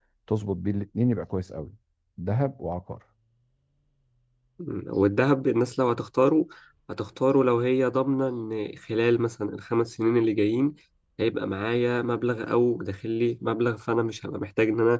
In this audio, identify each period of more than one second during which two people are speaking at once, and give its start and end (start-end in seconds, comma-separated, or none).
none